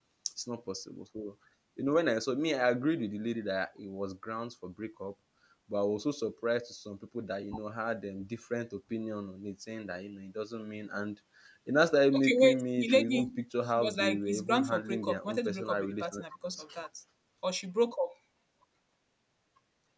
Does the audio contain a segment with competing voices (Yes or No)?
Yes